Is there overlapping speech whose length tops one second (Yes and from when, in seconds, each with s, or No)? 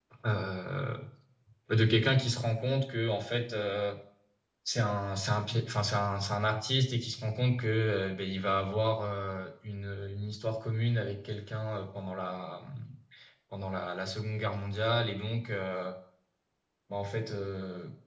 No